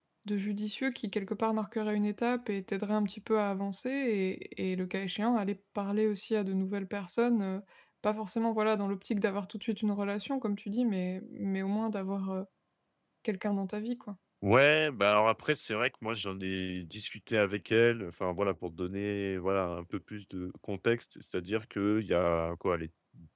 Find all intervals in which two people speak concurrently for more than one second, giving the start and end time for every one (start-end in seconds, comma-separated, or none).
none